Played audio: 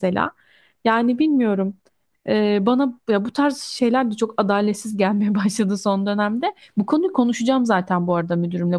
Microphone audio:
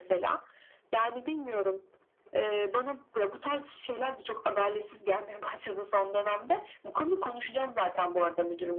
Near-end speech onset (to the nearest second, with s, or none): none